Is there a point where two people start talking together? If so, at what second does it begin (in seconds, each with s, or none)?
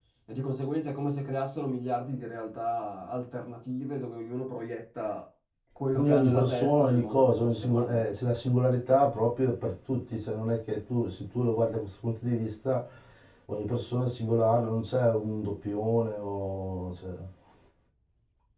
5.9 s